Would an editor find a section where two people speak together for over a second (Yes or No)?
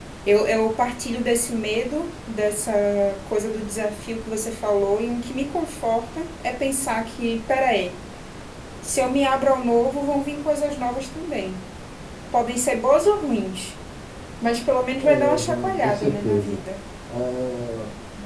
Yes